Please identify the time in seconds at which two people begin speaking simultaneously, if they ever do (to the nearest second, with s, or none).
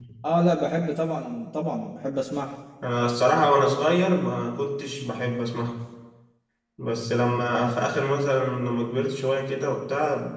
none